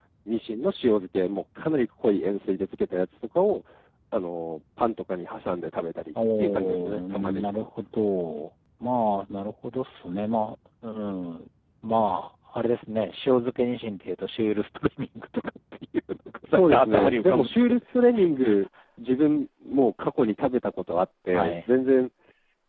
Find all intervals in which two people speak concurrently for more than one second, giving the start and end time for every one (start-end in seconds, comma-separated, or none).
6.4-7.6, 16.5-17.8